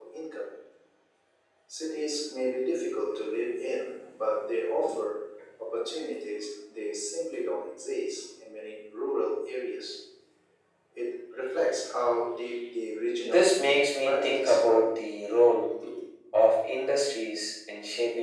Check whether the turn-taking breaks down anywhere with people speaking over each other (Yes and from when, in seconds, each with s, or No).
Yes, from 13.2 s